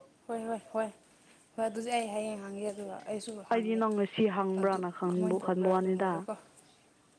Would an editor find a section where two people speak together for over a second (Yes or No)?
Yes